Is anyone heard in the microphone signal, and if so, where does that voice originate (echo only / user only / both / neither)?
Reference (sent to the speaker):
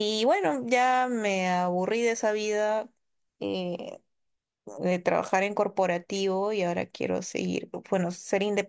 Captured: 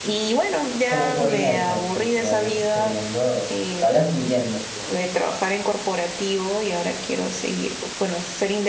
both